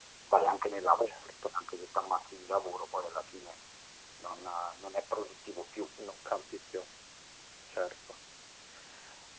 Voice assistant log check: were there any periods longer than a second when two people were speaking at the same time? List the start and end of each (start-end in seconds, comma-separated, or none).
none